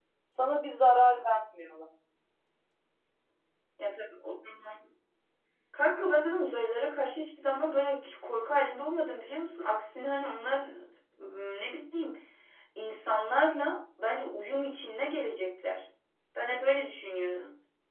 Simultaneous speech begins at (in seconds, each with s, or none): none